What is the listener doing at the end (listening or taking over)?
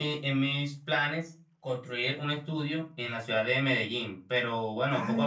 taking over